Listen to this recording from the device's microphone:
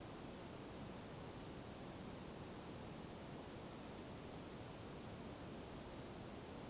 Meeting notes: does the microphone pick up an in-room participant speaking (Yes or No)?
No